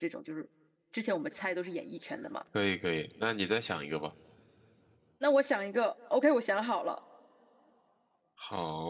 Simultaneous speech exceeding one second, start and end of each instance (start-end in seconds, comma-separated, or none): none